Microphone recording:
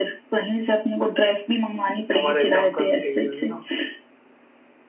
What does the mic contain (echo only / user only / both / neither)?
both